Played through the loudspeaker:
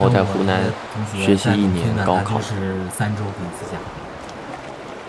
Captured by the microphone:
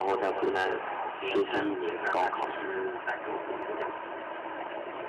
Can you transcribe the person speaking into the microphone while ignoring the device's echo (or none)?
哦，那这样子太可惜了。